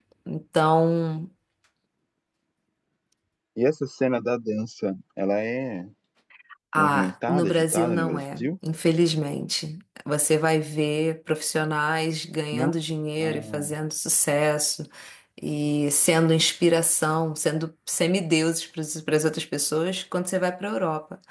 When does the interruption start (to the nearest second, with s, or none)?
7 s